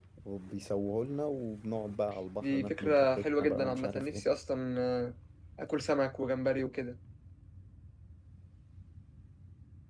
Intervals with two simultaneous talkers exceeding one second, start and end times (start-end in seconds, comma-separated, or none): 2.4-4.2